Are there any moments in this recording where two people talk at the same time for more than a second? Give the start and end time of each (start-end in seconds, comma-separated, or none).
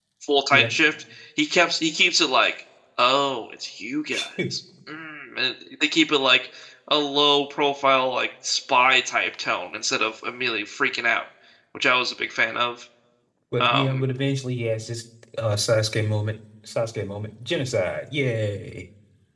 none